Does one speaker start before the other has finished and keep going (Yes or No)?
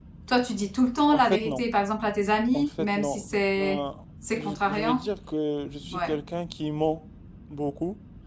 Yes